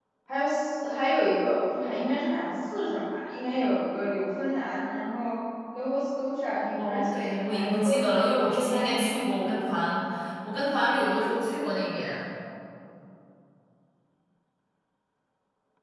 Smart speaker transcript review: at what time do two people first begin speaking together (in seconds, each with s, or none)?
6.8 s